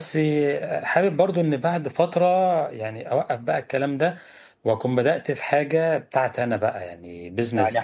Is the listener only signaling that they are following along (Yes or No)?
No